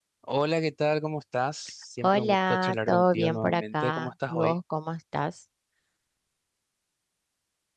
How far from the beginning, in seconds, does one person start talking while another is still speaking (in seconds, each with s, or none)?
2.0 s